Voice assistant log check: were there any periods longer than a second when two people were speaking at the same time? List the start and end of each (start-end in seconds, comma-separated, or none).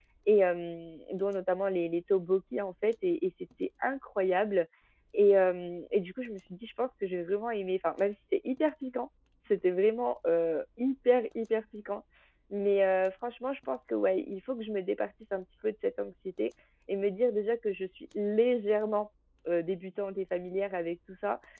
none